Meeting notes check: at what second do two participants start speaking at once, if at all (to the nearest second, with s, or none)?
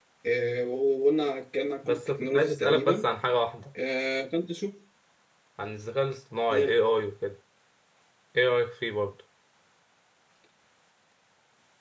2 s